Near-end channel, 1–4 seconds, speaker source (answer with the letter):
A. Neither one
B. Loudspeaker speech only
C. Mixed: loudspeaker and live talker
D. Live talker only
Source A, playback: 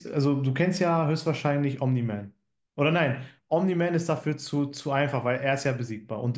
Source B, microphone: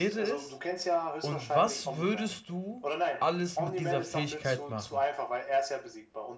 C